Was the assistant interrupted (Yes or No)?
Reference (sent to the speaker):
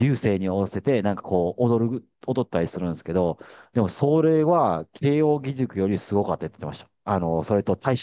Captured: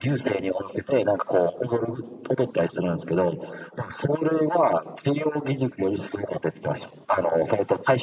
No